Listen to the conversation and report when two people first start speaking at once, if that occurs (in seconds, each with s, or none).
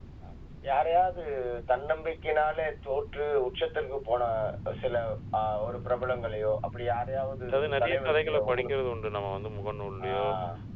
7.5 s